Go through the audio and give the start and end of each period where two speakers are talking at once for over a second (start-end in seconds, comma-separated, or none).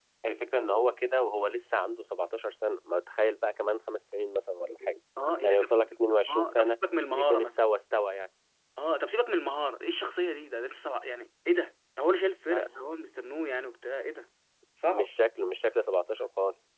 none